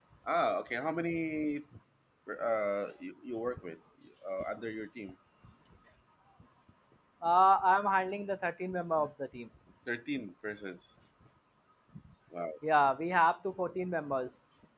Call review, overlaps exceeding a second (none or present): none